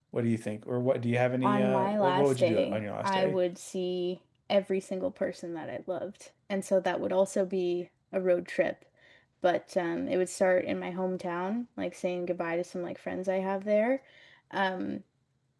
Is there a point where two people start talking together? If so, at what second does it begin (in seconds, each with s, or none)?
1.4 s